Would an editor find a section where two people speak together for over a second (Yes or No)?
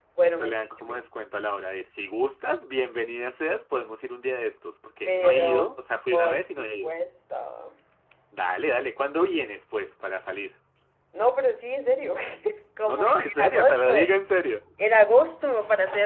Yes